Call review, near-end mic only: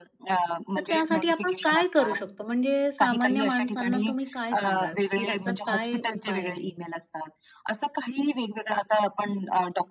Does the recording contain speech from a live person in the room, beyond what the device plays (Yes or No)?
Yes